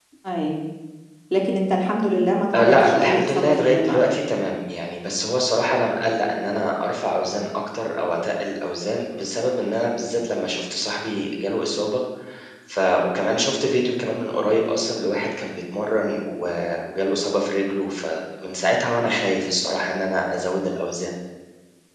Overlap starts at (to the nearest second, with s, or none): 3 s